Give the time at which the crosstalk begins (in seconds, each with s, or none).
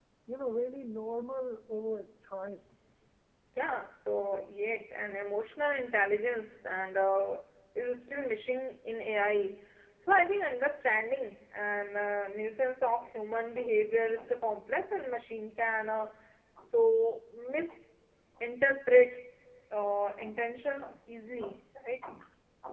none